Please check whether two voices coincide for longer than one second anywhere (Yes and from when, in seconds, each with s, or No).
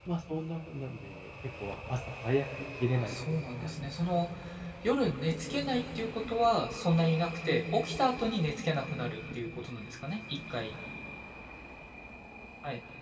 Yes, from 3.0 s